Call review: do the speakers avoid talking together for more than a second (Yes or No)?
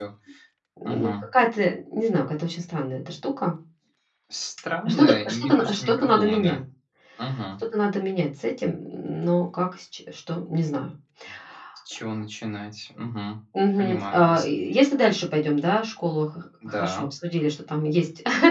No